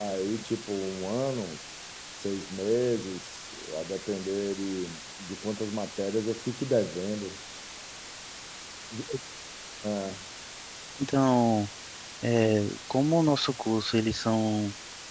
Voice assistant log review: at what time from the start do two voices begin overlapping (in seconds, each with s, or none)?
none